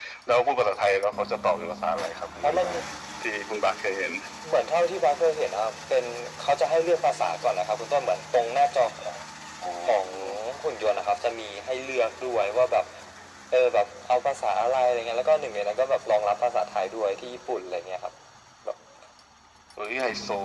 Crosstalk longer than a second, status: none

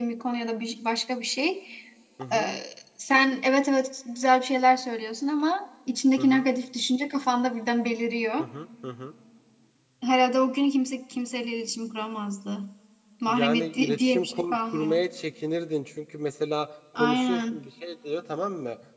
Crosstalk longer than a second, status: present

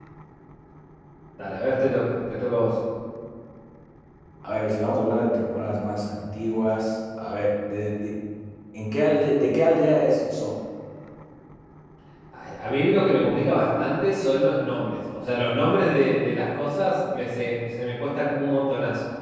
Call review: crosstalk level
none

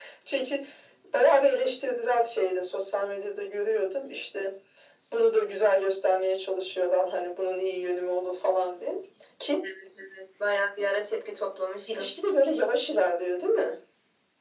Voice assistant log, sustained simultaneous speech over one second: none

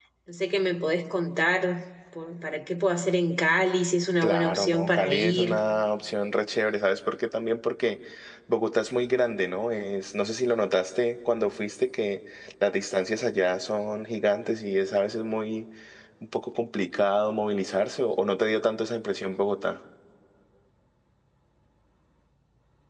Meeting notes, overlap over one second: present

